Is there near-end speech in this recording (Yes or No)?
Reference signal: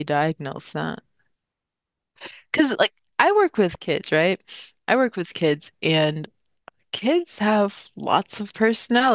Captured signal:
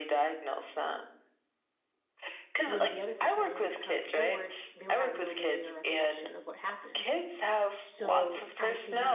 Yes